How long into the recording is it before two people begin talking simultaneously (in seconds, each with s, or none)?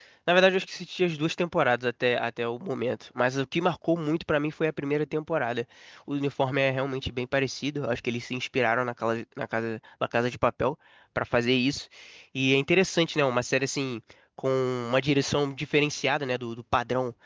none